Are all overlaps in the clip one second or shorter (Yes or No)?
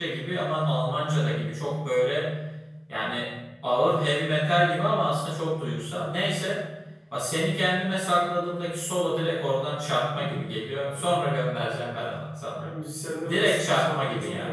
No